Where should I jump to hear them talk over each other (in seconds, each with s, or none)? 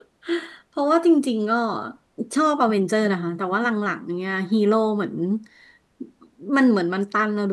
none